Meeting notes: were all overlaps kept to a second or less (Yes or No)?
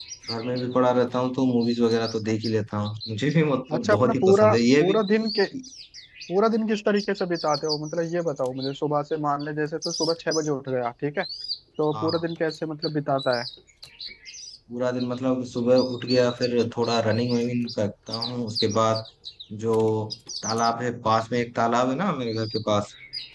No